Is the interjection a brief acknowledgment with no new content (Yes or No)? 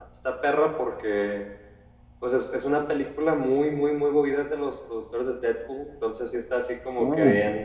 Yes